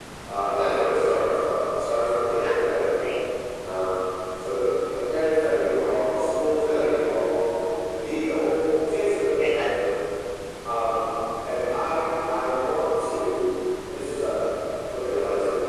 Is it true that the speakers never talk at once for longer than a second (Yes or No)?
Yes